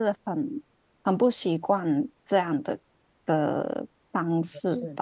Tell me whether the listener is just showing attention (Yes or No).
No